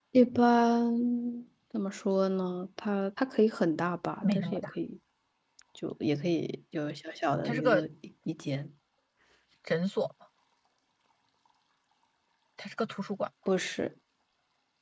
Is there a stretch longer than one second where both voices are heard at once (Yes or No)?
No